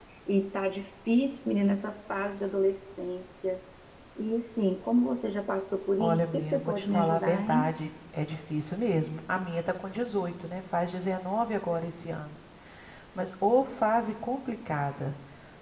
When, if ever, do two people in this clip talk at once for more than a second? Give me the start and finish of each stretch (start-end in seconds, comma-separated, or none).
6.0-7.7